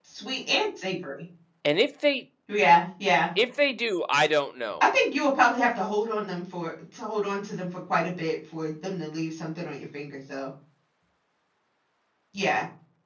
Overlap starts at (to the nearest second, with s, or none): none